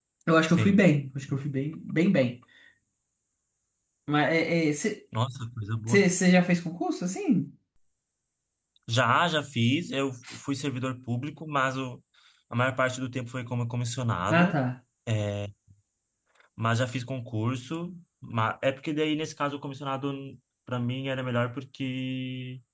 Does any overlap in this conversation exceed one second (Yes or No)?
No